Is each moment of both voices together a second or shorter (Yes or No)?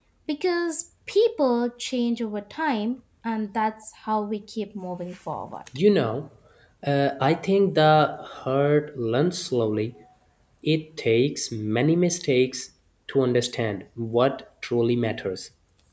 Yes